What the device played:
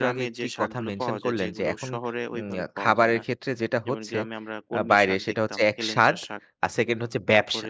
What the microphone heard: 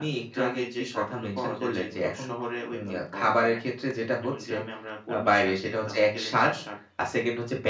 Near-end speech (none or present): none